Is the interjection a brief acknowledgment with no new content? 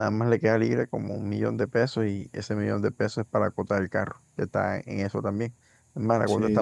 Yes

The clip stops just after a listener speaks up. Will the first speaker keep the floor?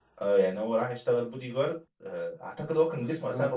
No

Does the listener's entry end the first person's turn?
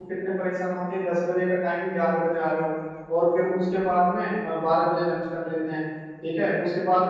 No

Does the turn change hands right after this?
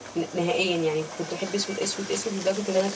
Yes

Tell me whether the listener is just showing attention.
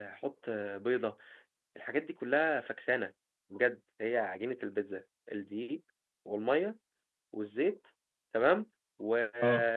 Yes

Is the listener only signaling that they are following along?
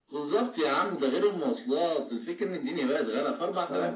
Yes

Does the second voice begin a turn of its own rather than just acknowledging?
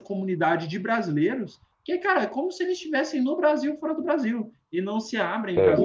No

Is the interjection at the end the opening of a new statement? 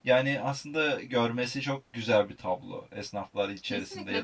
Yes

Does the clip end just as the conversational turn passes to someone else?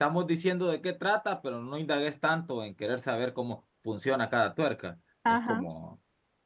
No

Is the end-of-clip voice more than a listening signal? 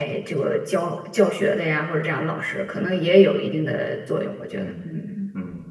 Yes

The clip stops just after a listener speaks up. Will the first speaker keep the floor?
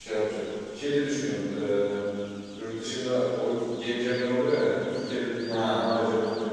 Yes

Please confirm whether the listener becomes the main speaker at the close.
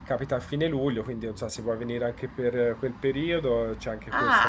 Yes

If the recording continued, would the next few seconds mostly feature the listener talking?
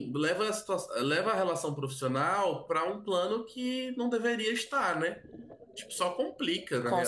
Yes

